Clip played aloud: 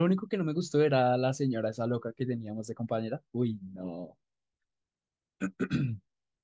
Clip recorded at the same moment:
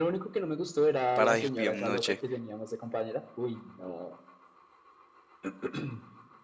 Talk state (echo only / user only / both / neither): both